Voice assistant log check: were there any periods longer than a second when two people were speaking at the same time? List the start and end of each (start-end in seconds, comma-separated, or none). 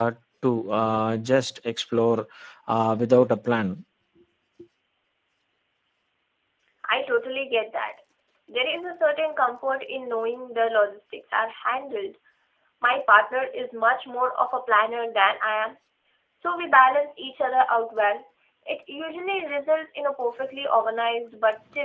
none